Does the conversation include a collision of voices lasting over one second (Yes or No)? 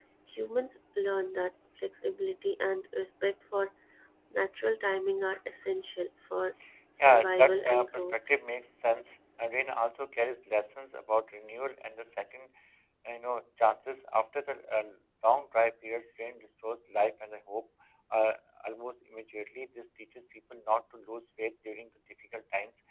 Yes